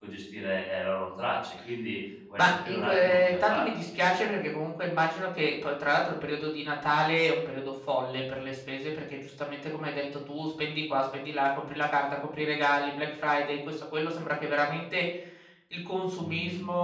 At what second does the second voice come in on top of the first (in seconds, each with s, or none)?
2.4 s